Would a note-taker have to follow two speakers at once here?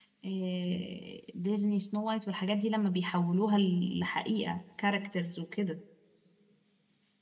No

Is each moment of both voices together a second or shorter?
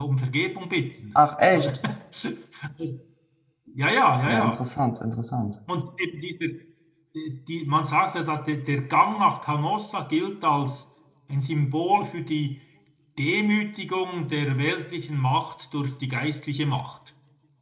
Yes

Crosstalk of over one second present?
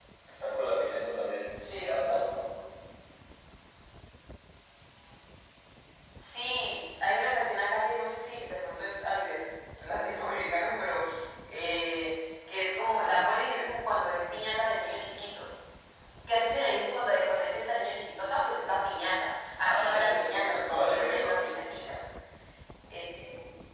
Yes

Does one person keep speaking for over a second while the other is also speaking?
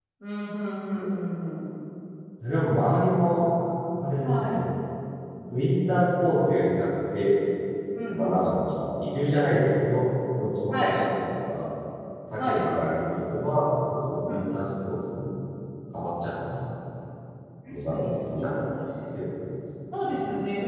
Yes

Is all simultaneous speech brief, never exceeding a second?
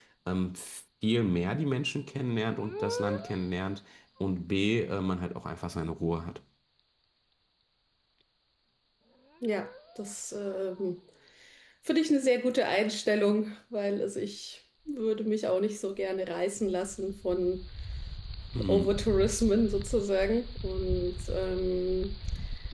Yes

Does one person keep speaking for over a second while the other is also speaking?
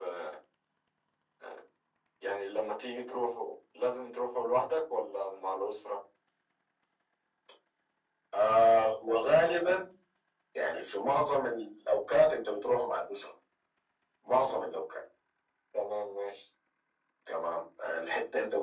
No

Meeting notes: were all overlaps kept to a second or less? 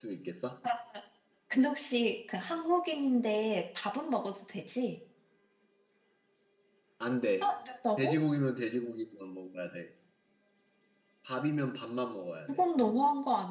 Yes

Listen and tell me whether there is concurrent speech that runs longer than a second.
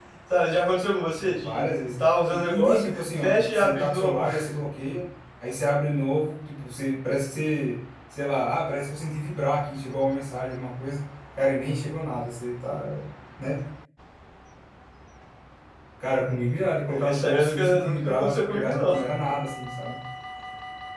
Yes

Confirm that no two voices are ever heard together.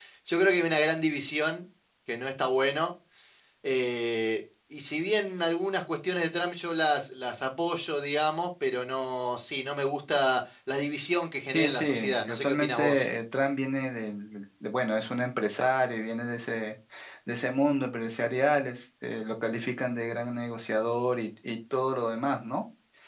No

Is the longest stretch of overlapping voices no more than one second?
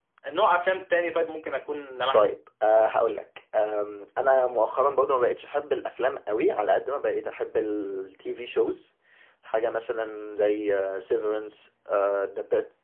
Yes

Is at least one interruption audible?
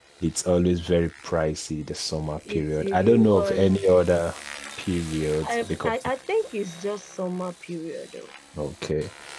Yes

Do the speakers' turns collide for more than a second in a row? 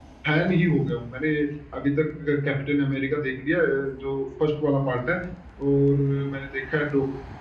No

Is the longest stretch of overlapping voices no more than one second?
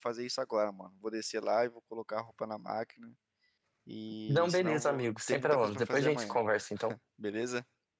No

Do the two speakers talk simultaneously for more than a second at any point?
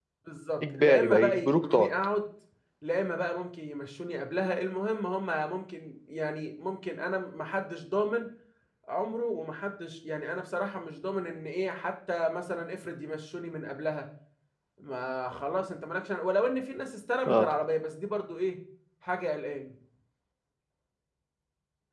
Yes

